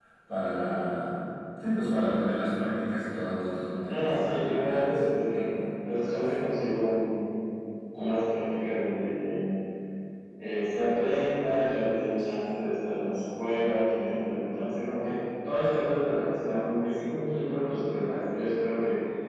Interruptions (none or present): present